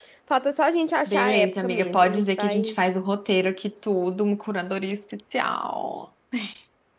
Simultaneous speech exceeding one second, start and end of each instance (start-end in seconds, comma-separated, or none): 1.1-2.7